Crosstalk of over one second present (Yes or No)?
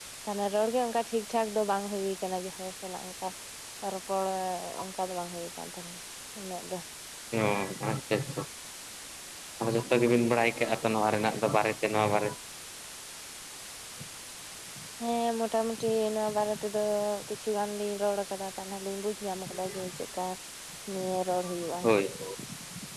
No